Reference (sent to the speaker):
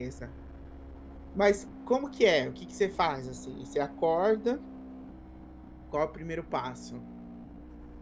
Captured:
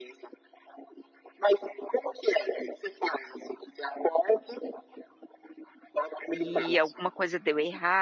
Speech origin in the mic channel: both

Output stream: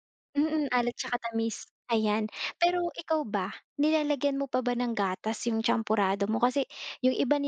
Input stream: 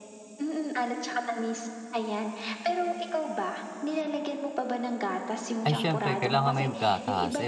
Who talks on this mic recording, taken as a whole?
both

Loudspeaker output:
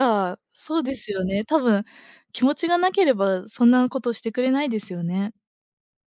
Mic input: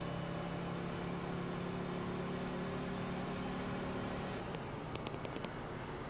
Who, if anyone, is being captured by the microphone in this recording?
neither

